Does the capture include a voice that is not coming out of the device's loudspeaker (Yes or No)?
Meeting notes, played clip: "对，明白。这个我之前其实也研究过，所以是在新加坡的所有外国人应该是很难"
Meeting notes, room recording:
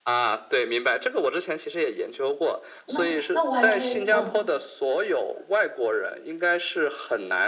Yes